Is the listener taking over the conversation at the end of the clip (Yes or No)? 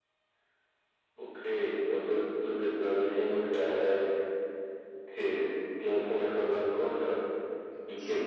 Yes